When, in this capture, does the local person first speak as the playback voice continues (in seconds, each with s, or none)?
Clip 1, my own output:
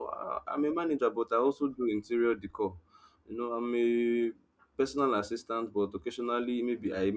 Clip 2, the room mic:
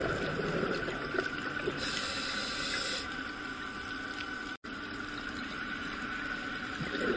none